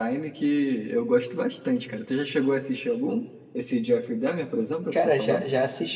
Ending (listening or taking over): taking over